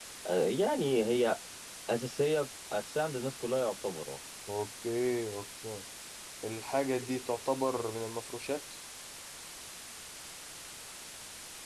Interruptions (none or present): none